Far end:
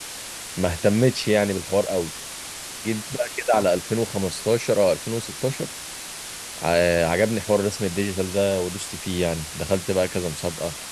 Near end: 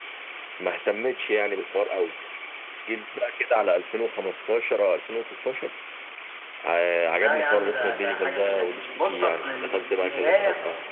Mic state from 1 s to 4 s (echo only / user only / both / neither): echo only